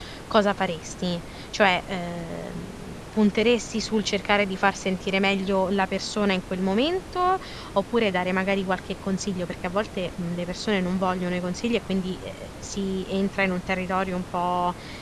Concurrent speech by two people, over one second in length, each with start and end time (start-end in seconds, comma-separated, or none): none